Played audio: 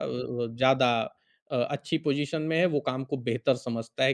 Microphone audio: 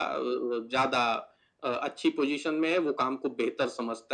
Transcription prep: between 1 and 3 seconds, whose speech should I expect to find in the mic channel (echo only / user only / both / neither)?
echo only